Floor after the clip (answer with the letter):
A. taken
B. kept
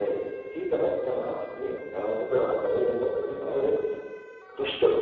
B